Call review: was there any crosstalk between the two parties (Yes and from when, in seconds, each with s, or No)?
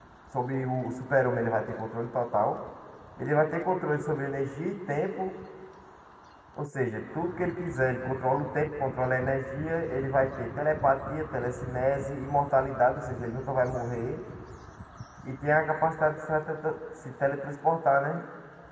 No